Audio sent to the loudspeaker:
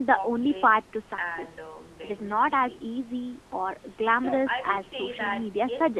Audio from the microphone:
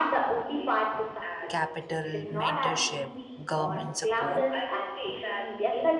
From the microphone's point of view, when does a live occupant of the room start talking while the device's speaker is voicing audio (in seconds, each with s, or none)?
1.5 s